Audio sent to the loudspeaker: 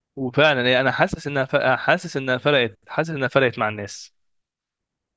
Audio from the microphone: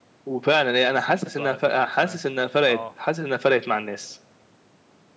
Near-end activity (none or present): present